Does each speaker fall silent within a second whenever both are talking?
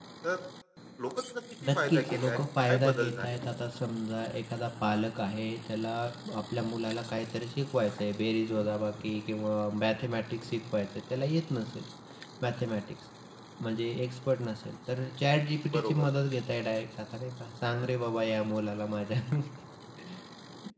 No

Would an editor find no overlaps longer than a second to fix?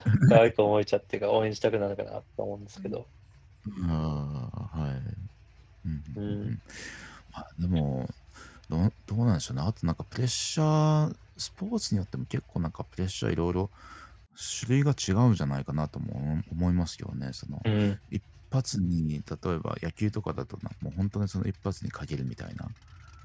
Yes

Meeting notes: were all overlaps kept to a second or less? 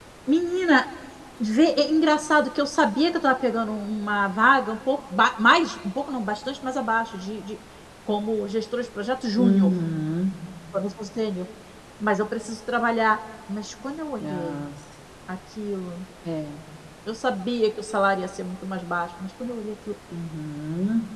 Yes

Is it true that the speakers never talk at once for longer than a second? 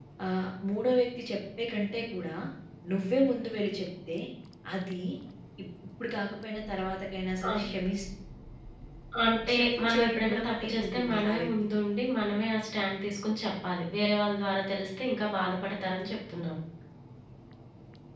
No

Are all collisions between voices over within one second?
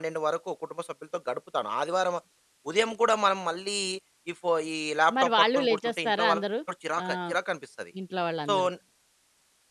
No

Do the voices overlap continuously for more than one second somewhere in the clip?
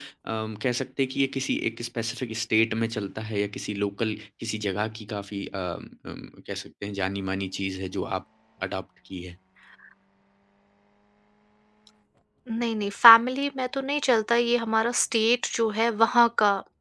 No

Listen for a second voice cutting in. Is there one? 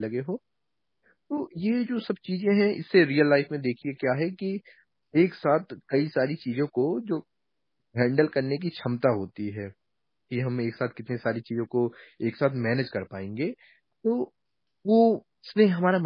No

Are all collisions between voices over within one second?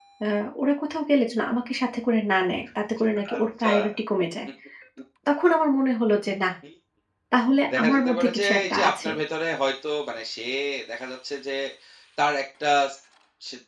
No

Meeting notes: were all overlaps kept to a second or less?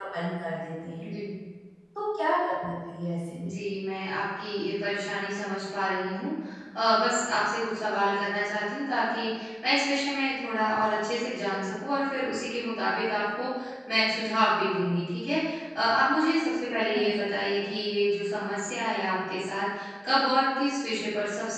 Yes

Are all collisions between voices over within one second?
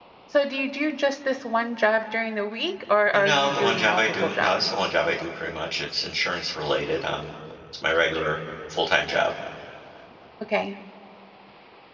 No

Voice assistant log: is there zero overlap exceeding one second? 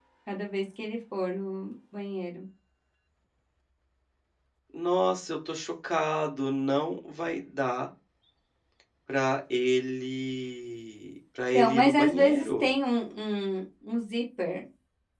No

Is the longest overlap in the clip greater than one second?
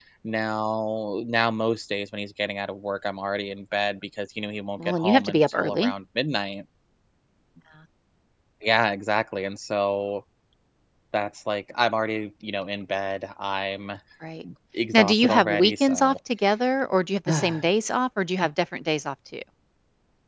Yes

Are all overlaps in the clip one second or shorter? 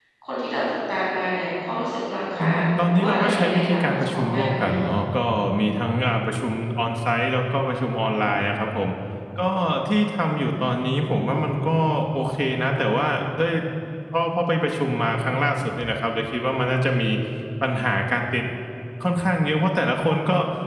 No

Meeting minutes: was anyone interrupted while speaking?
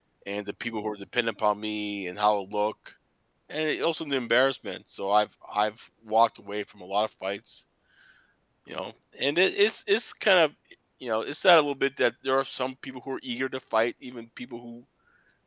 No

